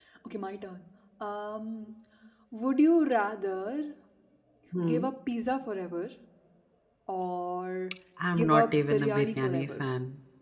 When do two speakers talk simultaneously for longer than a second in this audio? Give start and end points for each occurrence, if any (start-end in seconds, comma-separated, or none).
8.3-9.8